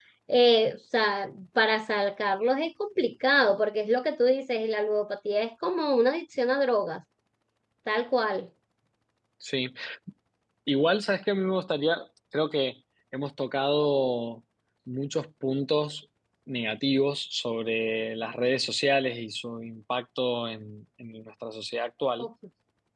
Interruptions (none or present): none